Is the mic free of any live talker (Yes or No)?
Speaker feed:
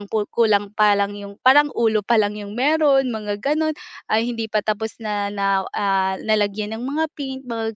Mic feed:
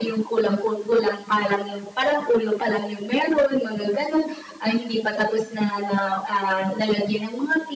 Yes